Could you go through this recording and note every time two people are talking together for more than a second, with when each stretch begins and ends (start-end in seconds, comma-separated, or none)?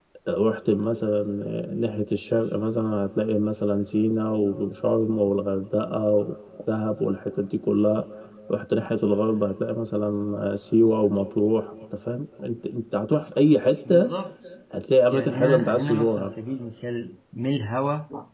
15.1-16.3